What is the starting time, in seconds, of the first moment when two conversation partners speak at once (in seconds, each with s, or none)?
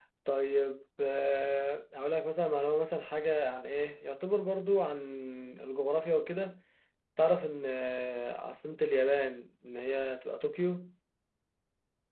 none